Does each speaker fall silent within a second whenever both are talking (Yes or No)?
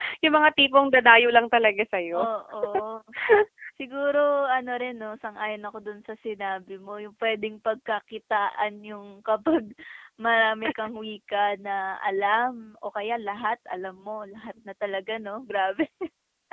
Yes